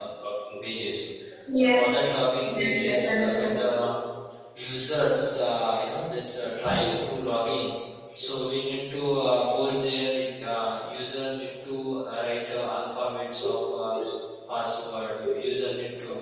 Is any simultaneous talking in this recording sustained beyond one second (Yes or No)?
Yes